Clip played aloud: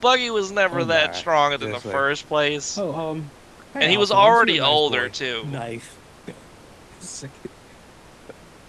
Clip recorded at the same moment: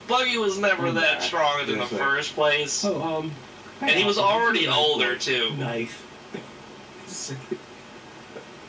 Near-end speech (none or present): none